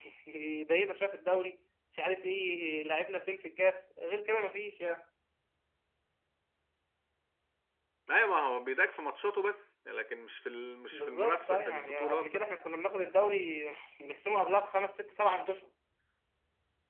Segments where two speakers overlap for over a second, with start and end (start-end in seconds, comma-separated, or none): 10.9-12.4